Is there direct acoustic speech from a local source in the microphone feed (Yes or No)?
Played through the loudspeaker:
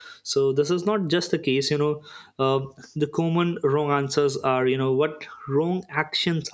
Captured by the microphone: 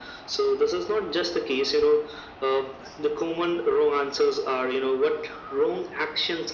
No